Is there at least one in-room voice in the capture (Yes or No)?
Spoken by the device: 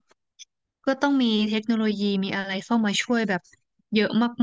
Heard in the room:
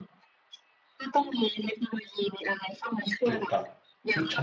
Yes